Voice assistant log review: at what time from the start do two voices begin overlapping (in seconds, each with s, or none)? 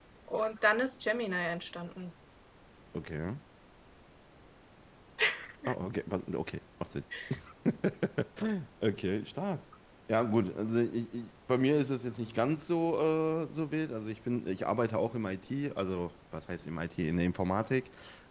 none